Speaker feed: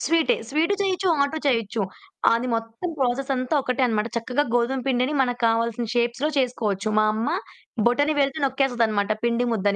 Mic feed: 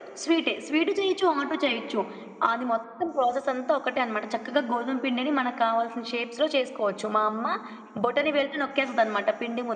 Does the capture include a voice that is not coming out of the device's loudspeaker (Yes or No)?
No